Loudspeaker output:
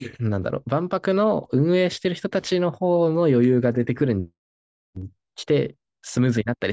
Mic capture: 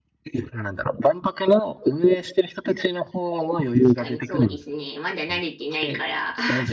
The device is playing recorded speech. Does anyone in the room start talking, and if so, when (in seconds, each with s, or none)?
4.0 s